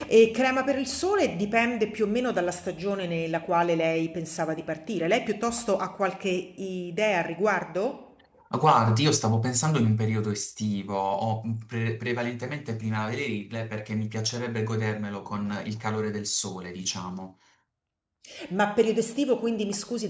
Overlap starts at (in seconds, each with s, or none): none